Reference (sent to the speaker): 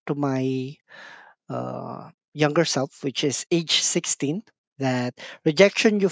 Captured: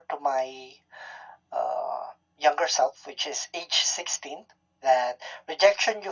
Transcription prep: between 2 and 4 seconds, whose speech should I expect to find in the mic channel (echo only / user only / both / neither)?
echo only